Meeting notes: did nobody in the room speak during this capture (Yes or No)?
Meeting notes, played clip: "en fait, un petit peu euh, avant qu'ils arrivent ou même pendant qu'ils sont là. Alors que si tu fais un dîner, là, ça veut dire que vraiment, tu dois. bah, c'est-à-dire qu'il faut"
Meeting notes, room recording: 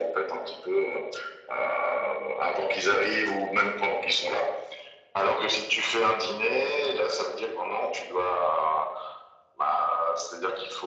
Yes